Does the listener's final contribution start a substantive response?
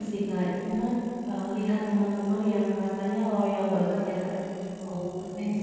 No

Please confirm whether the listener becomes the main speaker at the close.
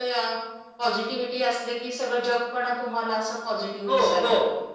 Yes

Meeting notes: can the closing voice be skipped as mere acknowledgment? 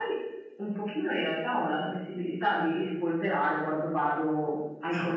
Yes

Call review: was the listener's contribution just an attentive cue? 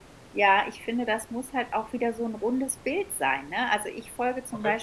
Yes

